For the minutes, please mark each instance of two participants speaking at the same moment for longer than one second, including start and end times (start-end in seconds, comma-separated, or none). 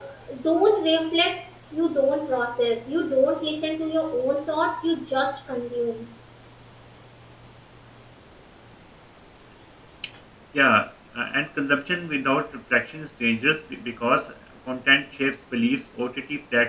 none